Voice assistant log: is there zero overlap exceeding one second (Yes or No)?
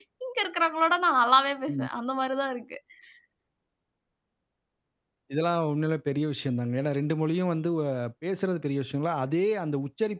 Yes